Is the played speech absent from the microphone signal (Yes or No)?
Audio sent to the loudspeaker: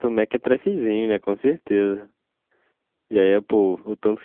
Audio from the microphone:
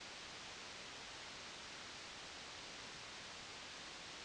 Yes